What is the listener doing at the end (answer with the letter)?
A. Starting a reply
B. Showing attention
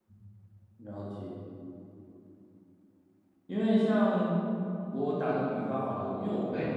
B